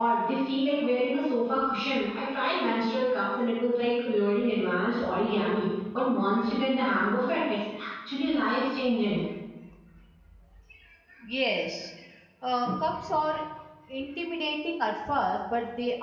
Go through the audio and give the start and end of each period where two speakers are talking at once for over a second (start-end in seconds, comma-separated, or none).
none